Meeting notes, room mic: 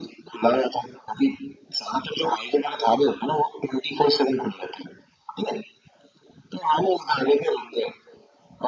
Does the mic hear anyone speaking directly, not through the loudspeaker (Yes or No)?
No